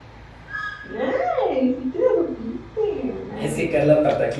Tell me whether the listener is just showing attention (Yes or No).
No